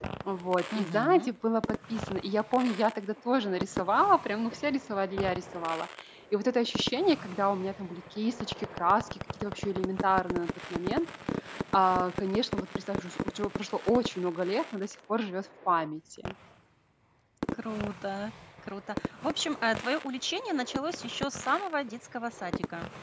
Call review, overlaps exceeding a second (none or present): none